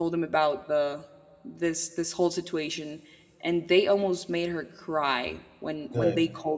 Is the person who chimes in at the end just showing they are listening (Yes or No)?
Yes